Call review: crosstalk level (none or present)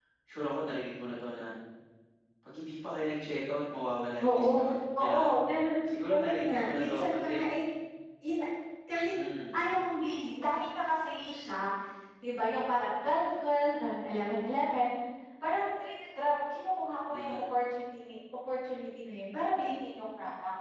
present